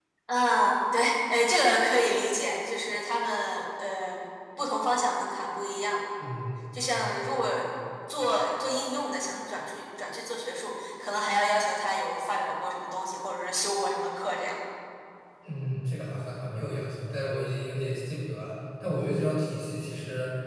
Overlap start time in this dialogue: none

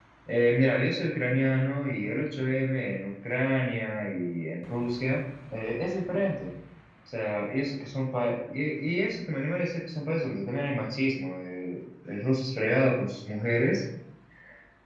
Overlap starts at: none

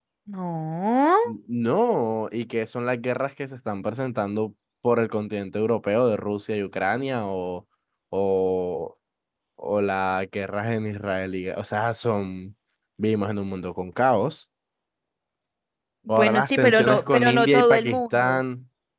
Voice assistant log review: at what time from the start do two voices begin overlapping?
16.1 s

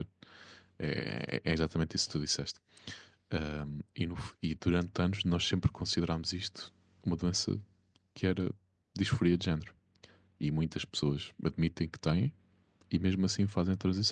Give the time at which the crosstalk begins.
none

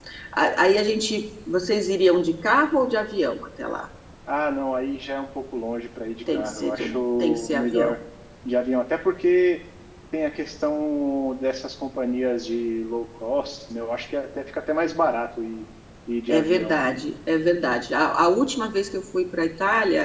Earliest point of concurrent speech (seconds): 6.3 s

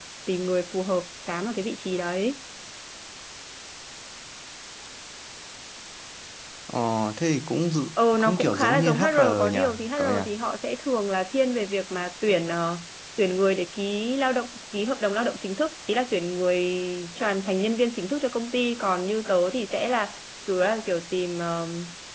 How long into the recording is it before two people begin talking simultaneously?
8.0 s

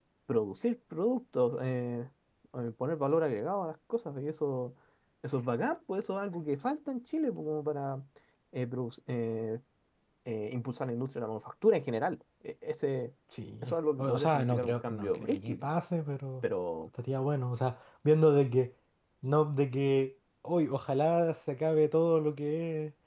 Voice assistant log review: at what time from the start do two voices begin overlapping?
13.6 s

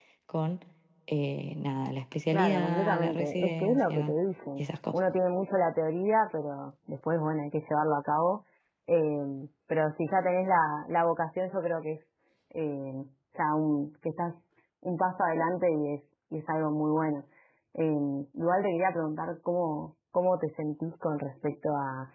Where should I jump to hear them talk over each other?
2.3 s

